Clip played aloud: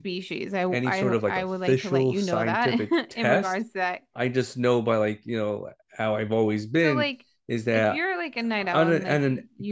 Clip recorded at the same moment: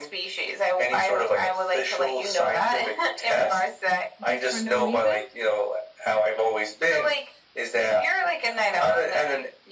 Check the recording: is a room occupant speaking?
Yes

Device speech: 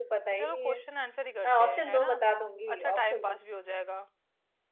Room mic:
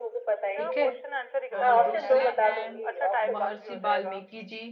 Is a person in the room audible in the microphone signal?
Yes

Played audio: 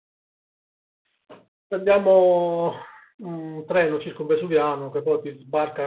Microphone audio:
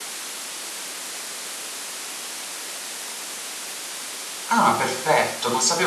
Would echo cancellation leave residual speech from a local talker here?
Yes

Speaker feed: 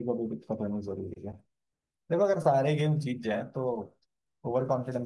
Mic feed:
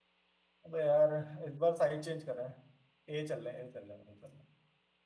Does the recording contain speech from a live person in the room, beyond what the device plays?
Yes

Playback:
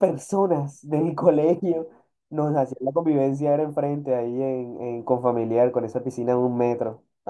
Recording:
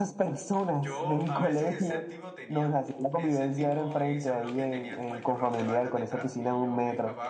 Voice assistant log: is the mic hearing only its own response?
No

